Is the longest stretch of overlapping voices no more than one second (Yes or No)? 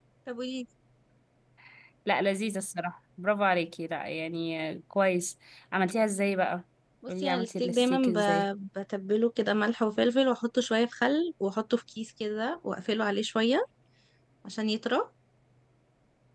No